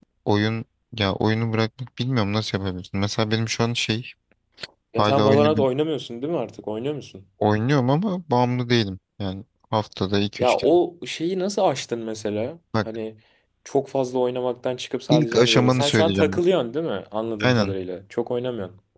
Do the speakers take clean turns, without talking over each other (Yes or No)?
No